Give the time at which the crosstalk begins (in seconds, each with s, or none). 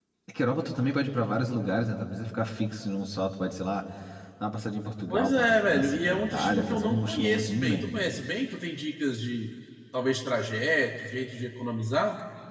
5.1 s